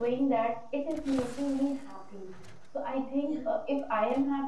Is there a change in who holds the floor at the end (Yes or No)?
No